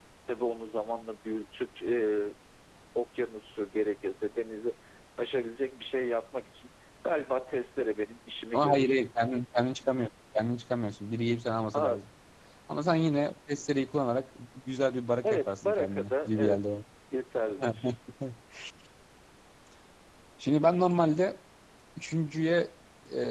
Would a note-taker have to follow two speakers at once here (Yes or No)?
Yes